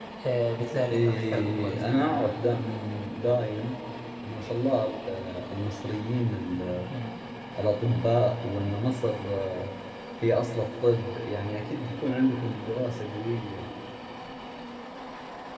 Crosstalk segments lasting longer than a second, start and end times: 0.9-2.3

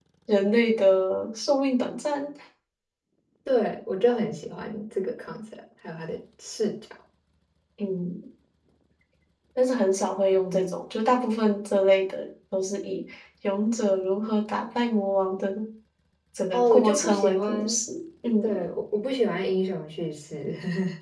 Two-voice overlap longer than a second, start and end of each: 16.5-17.8

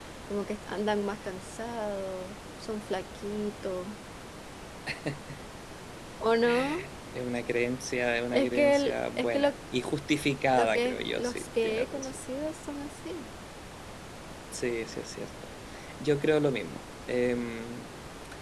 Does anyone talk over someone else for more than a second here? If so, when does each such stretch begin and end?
8.3-9.5, 10.5-12.1

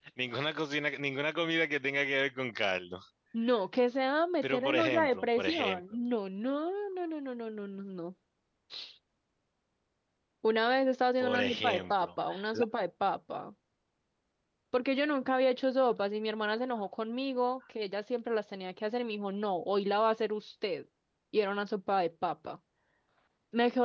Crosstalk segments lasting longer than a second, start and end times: 4.4-5.8, 11.2-12.7

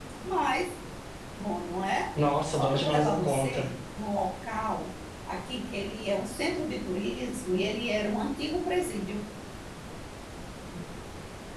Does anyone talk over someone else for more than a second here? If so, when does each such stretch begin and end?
2.5-3.7

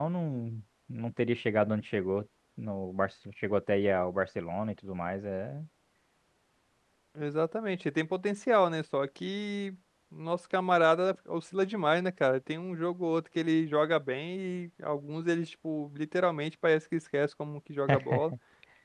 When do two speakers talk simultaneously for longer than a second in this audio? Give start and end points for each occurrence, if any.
none

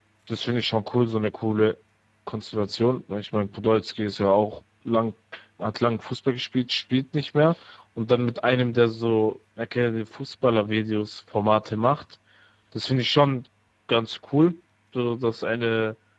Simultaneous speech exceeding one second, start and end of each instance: none

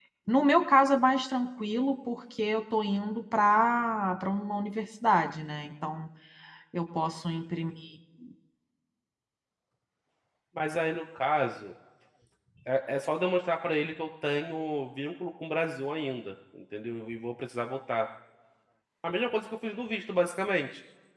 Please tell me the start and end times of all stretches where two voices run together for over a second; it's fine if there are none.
none

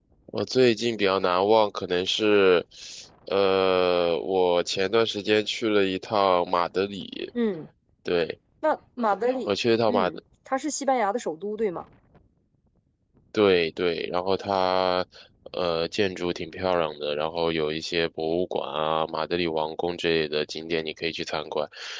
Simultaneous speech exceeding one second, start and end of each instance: none

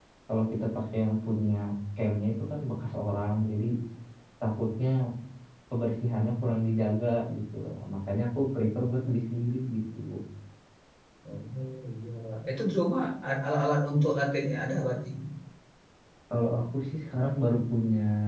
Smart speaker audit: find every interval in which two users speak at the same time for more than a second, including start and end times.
none

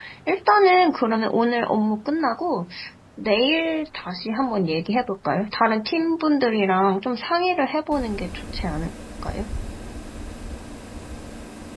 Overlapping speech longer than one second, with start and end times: none

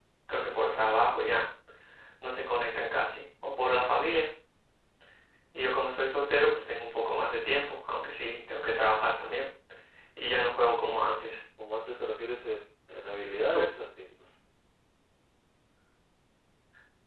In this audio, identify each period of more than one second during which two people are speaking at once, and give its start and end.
none

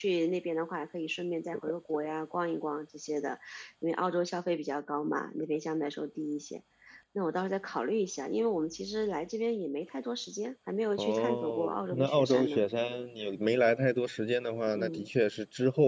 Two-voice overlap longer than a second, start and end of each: 11.0-12.6

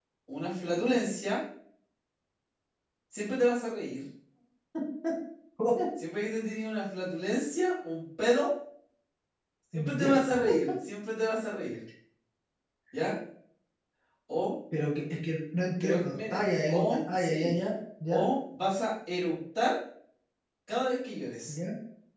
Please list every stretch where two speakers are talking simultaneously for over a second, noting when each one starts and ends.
15.8-17.5

